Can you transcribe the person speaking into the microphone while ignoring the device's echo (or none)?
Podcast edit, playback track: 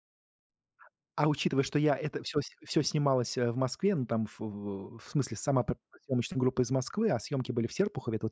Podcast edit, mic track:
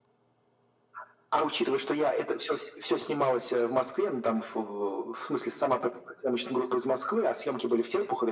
none